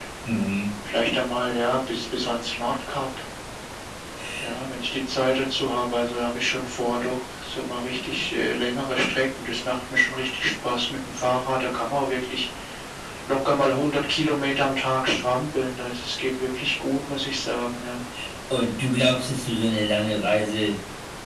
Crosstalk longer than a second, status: none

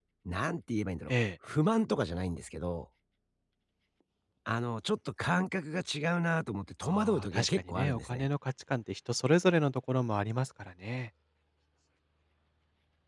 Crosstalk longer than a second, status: present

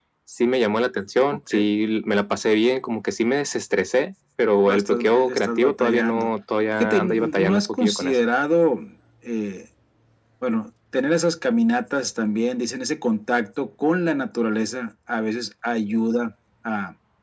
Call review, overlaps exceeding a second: present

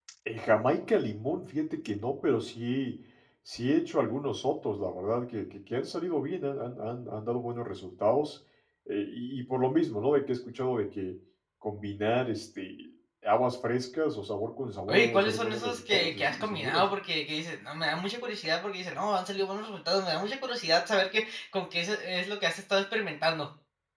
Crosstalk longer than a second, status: present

